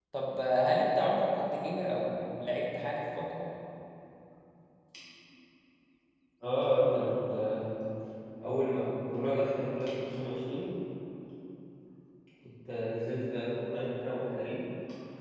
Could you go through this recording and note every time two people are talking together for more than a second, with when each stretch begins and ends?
none

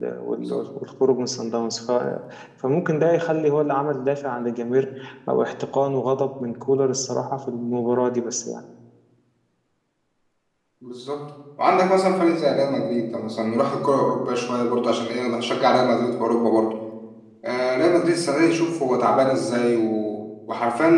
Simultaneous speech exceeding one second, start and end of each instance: none

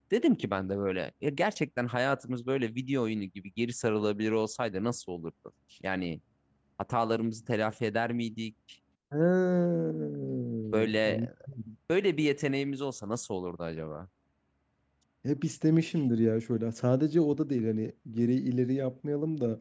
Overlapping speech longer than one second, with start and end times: none

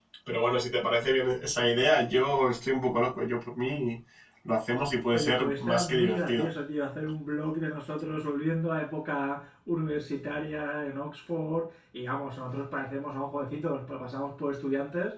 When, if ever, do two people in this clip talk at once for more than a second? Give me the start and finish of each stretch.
5.1-6.5

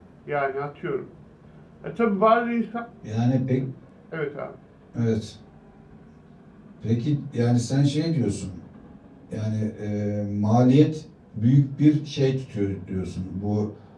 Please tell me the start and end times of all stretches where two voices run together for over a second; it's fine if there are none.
none

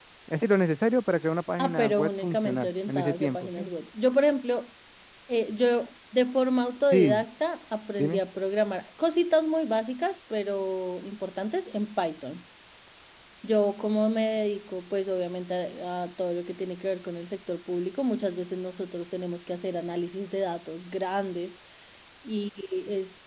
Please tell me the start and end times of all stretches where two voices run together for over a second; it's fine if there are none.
1.6-3.6

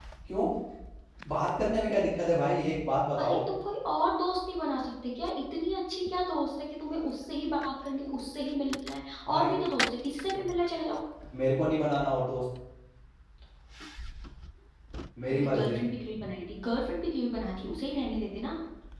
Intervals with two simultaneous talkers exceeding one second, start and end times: none

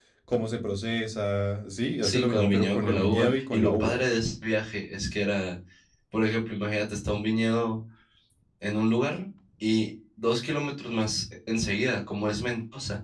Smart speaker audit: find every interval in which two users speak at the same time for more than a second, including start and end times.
2.0-4.0

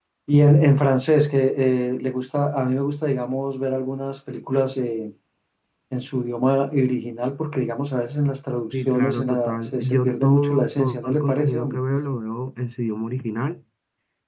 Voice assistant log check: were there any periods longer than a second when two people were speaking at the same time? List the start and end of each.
8.7-11.8

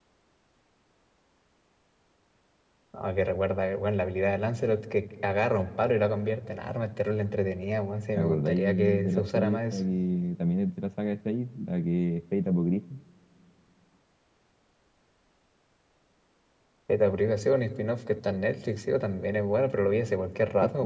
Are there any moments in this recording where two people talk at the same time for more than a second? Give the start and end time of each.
8.1-9.8

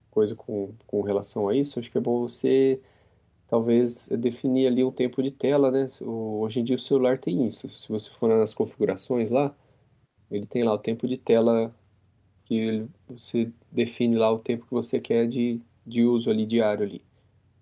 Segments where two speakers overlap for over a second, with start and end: none

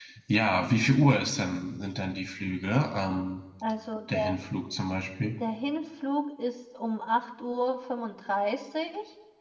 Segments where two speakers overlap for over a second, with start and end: none

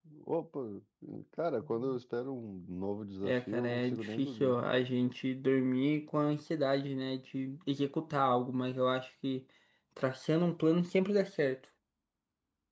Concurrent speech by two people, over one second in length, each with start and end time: 3.2-4.6

